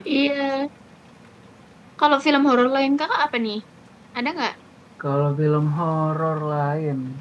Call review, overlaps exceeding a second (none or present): none